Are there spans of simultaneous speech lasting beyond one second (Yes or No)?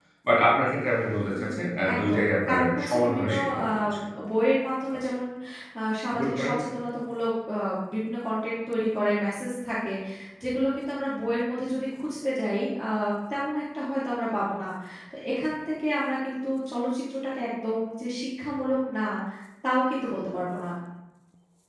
Yes